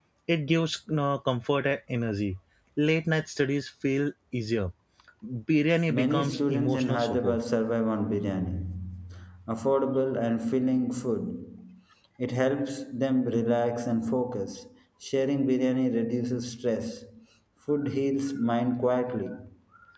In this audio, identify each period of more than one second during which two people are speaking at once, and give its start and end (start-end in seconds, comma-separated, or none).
5.9-7.4